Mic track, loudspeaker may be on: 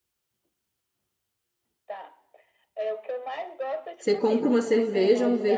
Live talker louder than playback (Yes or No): Yes